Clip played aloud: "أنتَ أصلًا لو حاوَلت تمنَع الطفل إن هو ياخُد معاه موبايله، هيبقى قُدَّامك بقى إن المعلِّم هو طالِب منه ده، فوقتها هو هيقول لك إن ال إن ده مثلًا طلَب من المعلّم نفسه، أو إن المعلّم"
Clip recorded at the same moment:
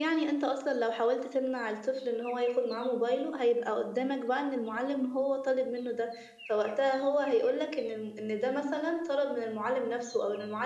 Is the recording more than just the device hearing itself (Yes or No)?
No